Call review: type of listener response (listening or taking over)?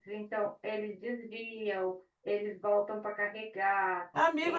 taking over